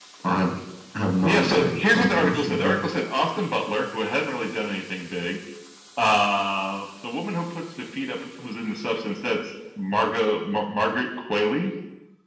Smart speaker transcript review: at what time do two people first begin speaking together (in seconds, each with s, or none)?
1.2 s